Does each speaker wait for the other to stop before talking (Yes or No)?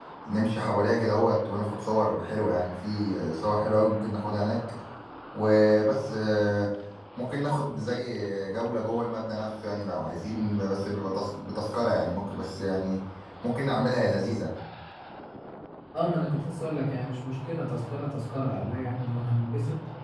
Yes